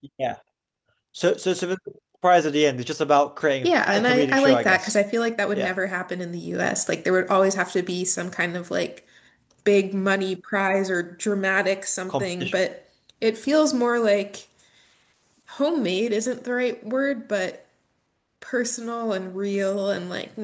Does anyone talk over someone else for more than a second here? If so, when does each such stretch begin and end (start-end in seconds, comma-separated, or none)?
3.6-5.0